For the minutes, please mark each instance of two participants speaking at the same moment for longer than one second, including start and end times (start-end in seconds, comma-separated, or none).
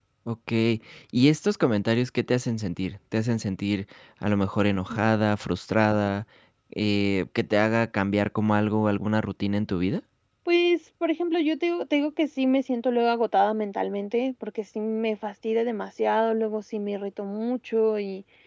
none